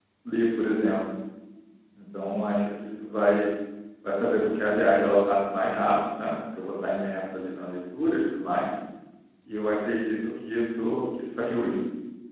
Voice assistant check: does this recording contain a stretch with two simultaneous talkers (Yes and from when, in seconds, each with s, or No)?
No